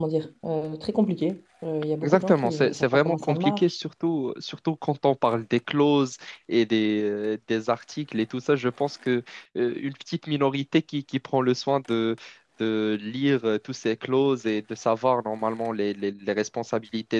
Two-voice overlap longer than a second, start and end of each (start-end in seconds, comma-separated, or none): 2.0-3.8